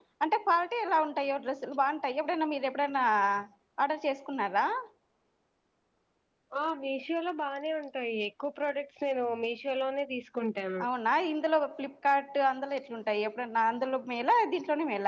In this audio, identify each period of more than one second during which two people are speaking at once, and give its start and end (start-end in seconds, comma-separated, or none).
none